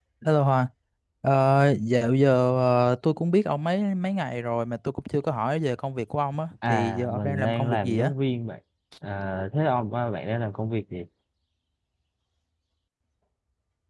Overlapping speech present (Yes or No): Yes